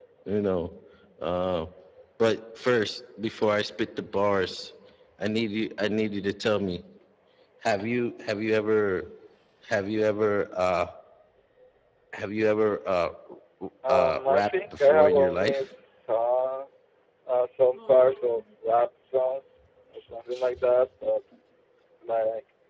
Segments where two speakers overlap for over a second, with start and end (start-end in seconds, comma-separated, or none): 13.9-15.7